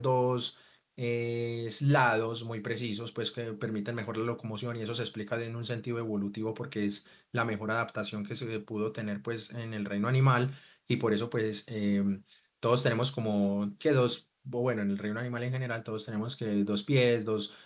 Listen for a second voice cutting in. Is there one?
No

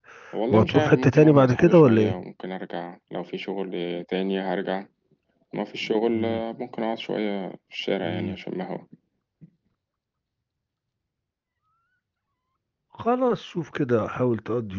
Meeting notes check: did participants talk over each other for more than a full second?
Yes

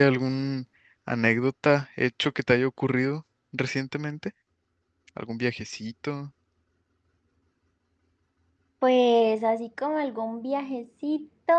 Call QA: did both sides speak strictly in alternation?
Yes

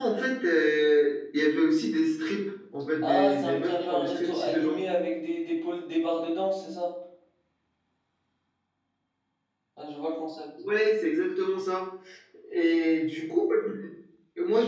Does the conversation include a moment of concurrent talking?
Yes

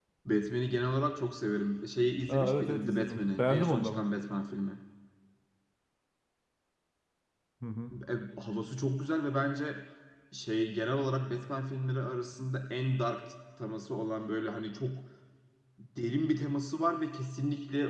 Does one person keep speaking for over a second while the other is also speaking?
Yes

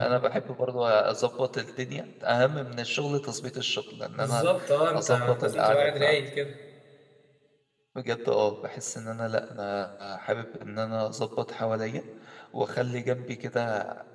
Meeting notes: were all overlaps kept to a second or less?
No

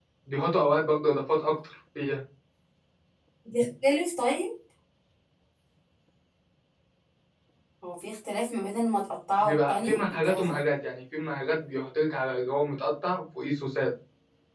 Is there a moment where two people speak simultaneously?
Yes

